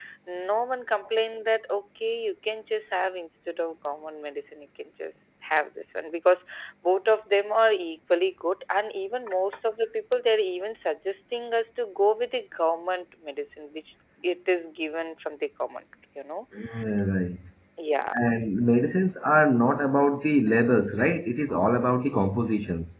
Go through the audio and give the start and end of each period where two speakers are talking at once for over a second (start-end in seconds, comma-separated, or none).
none